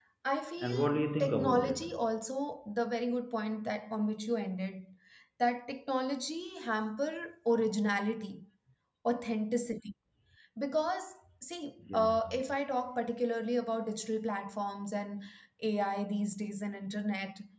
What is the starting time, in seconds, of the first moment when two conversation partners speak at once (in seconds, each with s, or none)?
0.6 s